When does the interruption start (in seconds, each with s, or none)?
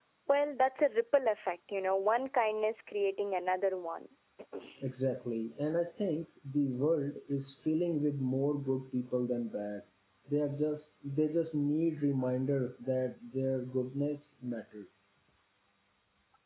none